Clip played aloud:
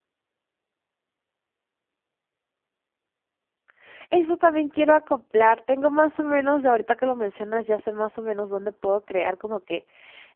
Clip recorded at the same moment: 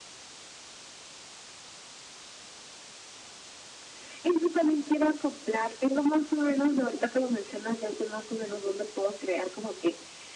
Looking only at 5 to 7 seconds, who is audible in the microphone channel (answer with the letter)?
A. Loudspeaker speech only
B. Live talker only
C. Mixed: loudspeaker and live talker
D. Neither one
A